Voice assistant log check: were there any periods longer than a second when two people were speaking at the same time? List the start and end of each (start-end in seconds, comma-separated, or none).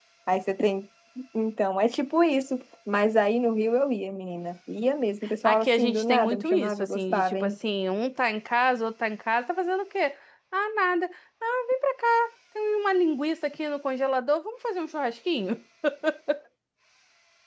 5.5-7.5